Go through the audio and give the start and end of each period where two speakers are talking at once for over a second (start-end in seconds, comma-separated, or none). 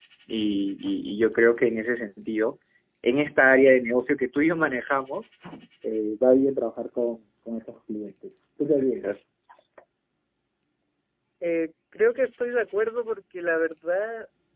none